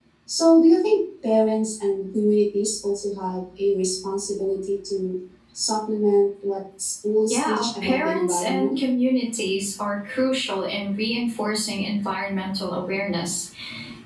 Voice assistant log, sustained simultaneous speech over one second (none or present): present